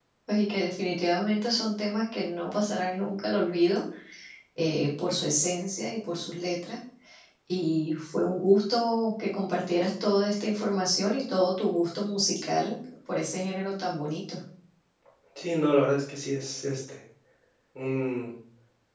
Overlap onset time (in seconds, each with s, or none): none